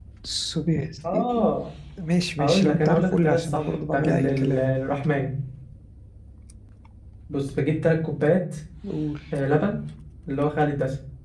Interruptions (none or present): present